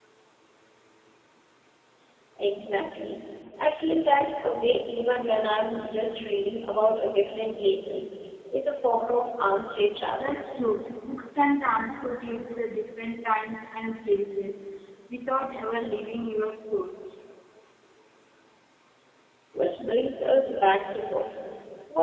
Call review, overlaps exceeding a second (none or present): none